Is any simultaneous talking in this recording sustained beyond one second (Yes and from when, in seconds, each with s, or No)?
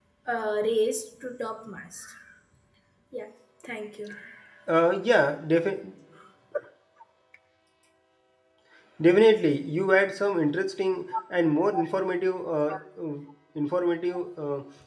No